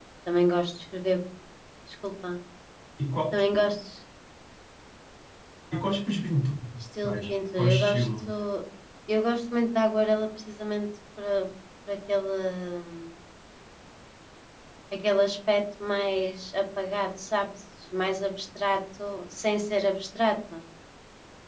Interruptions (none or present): present